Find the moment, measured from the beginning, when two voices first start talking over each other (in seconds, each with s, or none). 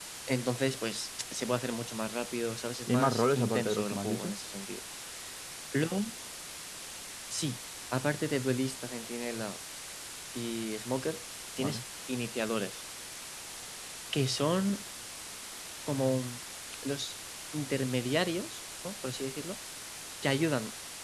2.9 s